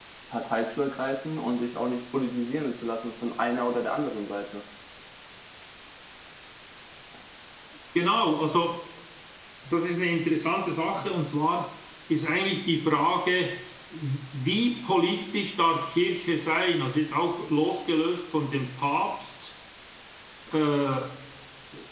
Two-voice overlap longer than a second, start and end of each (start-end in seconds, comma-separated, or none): none